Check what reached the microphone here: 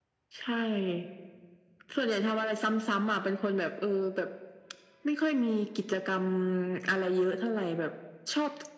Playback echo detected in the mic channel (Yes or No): Yes